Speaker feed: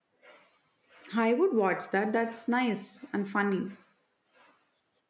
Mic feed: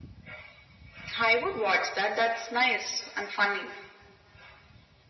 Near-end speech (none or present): none